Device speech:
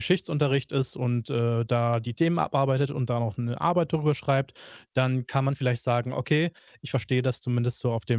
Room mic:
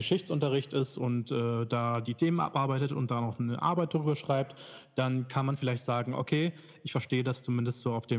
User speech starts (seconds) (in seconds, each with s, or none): none